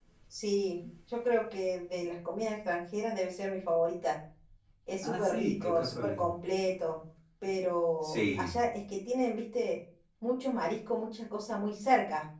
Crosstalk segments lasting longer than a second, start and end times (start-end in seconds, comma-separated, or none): 5.0-6.2